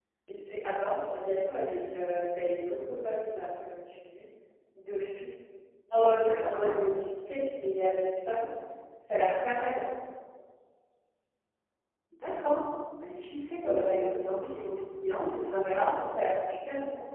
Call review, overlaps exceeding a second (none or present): none